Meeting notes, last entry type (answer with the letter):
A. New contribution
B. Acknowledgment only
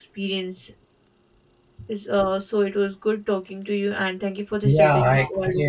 A